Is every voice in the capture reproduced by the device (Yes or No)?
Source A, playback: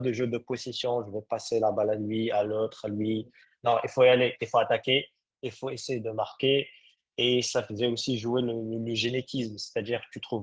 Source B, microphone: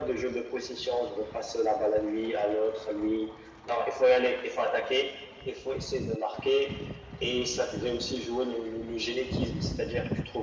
Yes